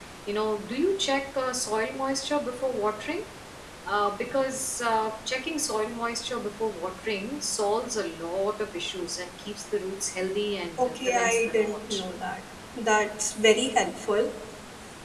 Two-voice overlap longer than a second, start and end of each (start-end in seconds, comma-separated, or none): 10.8-12.0